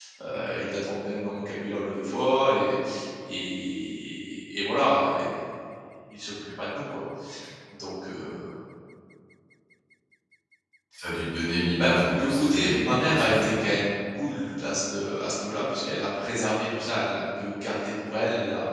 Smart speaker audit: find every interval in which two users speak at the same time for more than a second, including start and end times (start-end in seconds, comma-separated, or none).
11.8-13.7